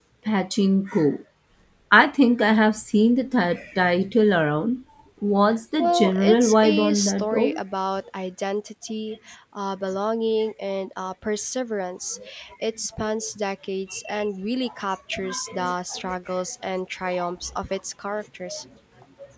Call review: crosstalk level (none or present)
present